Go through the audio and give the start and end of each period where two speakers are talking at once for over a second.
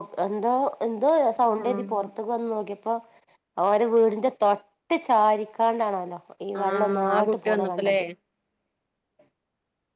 6.6-8.0

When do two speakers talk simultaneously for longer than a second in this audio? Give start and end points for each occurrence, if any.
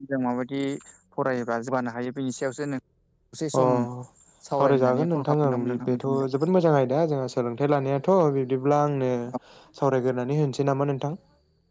4.6-6.2

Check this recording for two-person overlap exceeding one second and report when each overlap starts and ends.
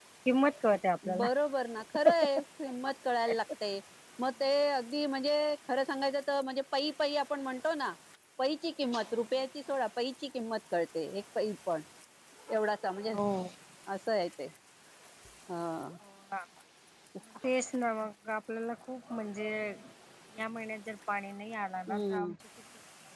none

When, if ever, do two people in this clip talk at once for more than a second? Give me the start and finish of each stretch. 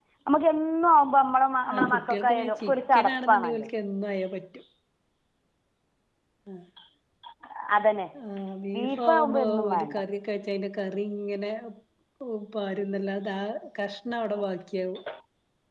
1.7-3.7, 8.7-10.0

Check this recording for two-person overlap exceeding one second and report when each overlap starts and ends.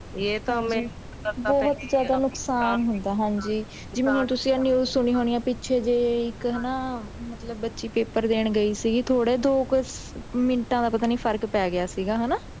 1.4-2.8

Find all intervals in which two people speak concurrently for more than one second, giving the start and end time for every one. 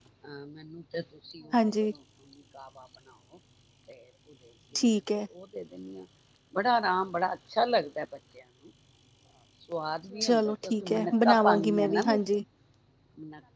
10.2-12.2

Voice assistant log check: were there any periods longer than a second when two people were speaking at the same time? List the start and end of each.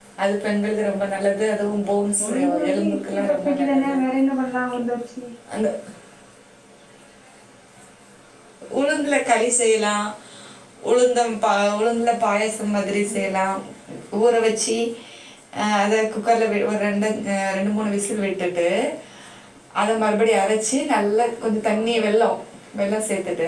2.2-4.0

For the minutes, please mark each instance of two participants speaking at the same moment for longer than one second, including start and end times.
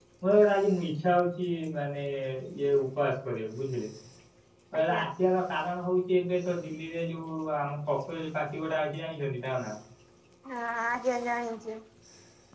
none

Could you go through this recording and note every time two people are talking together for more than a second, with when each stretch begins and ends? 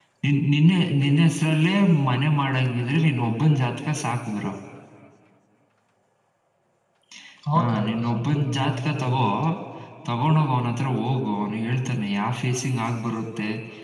7.6-9.2

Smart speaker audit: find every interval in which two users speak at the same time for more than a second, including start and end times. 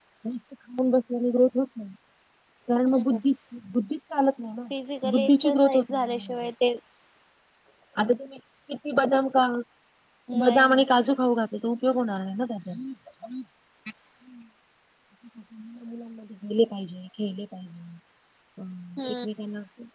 5.1-6.3

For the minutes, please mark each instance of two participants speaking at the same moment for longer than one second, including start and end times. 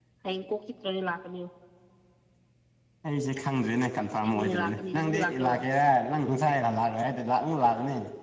4.2-5.6

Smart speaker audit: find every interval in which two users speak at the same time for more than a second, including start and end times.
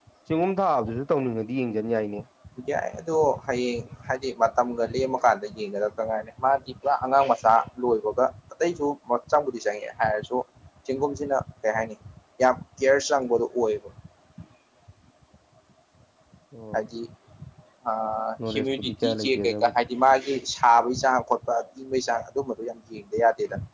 18.5-19.8

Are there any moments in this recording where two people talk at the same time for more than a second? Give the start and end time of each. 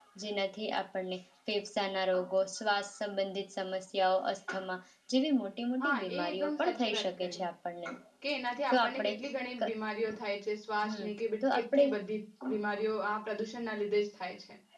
5.8-7.4

